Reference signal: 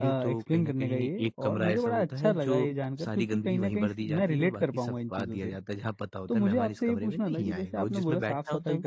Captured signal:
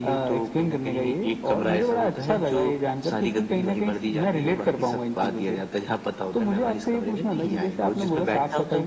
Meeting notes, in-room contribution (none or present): none